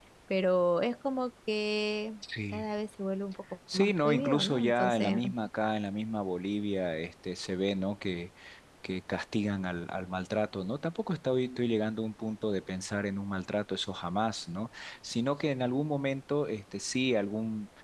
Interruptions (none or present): present